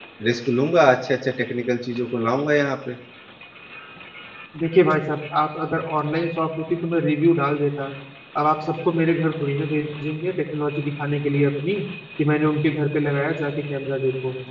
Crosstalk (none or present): none